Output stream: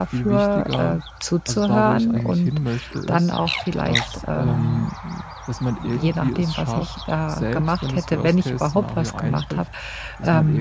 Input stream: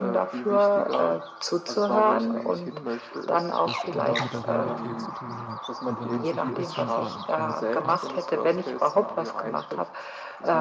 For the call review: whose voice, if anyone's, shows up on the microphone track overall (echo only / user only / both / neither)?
both